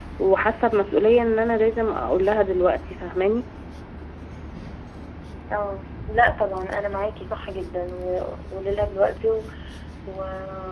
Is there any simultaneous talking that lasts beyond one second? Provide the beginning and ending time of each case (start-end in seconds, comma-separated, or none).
none